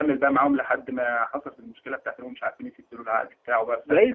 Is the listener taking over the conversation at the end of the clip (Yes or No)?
Yes